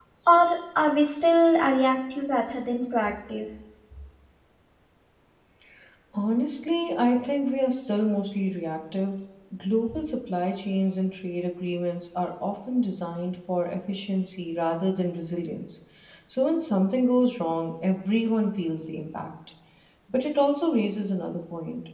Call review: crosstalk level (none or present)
none